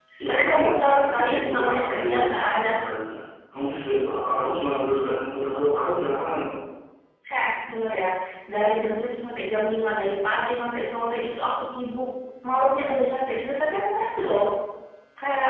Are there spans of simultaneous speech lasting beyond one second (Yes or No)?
Yes